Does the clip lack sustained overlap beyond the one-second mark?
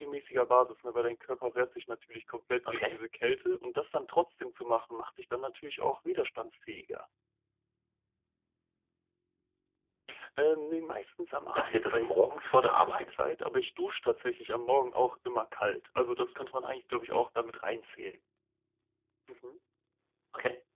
No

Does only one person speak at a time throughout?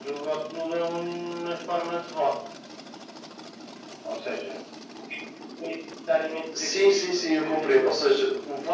No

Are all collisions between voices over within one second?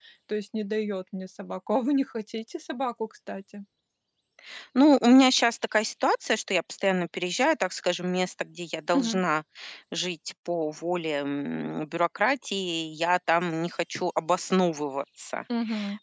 Yes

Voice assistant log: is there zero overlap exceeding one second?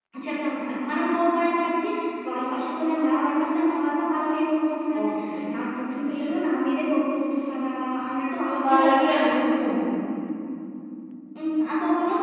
No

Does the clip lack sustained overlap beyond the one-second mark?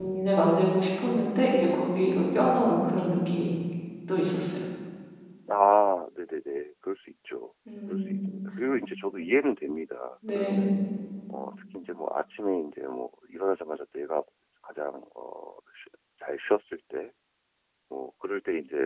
Yes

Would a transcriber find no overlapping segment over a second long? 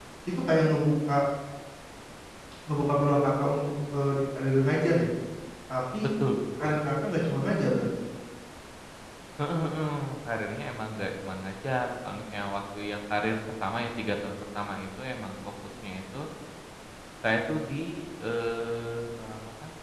Yes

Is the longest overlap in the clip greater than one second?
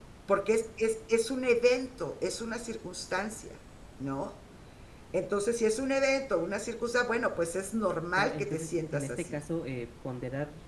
Yes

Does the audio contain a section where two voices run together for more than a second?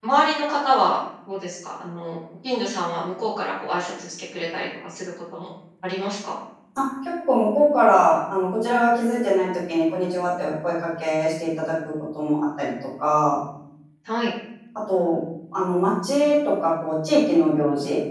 No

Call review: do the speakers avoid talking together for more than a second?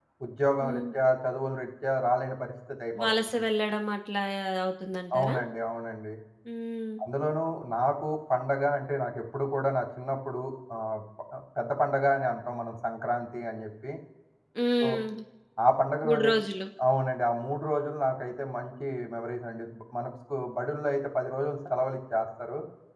Yes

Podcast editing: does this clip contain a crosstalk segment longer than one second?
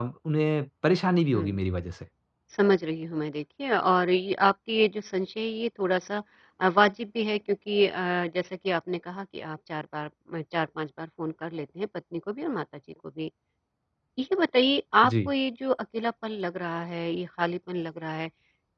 No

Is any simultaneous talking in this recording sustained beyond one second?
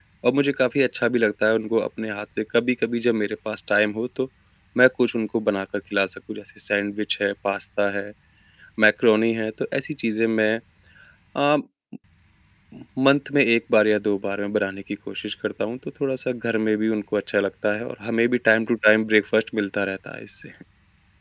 No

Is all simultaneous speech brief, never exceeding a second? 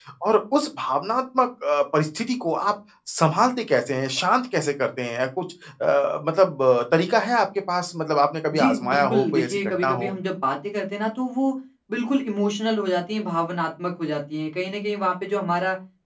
No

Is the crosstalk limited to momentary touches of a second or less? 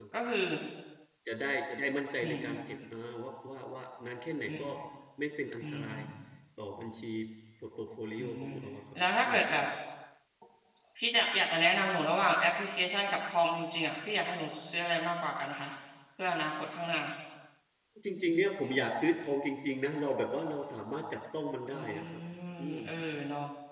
Yes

